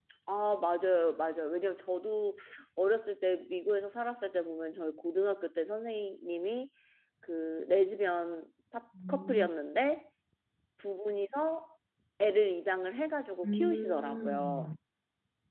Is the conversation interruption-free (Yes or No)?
No